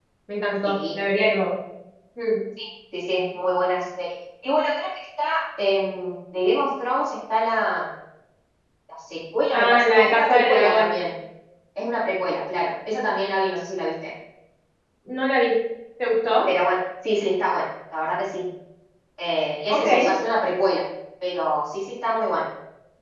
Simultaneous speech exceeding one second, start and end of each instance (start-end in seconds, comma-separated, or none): 9.5-11.0